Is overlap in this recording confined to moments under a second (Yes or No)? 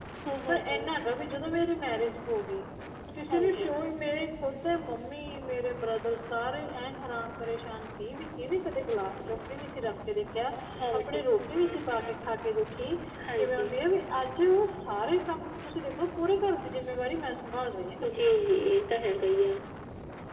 Yes